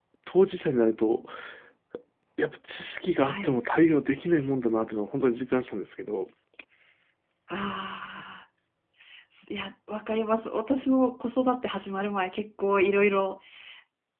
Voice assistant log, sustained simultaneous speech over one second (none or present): none